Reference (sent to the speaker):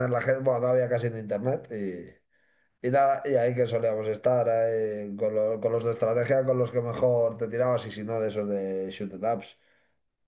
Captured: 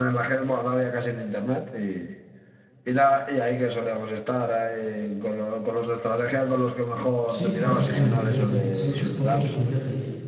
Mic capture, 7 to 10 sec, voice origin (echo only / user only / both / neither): both